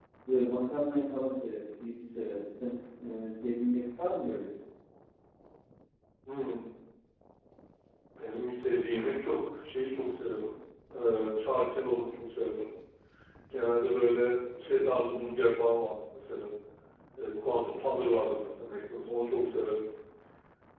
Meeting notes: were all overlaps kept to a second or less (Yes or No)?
Yes